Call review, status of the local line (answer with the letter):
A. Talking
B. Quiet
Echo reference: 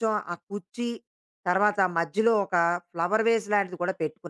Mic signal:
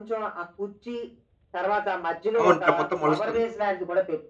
A